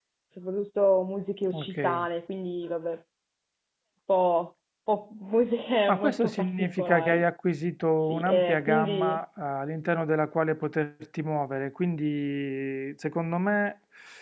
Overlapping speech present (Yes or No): Yes